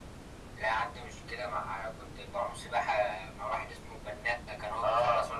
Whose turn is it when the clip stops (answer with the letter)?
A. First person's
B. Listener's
B